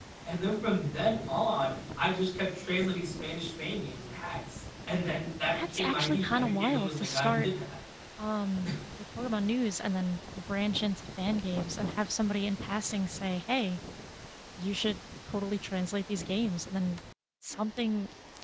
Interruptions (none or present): present